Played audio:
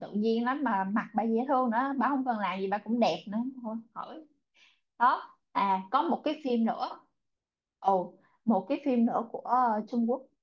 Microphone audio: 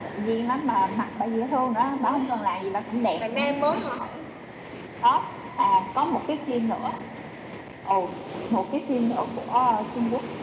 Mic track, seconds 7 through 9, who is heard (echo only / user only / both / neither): echo only